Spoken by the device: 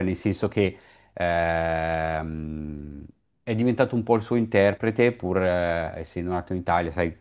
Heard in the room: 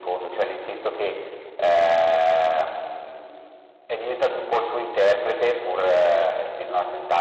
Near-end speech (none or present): none